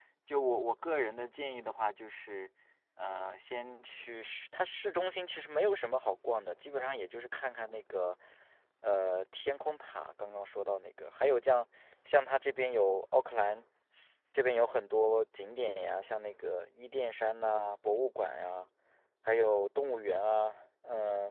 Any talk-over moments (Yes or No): No